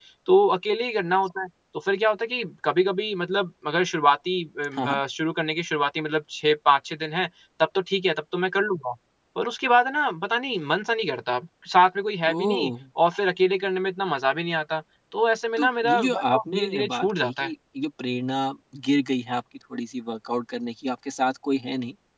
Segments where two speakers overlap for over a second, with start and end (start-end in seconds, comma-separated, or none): 15.6-17.5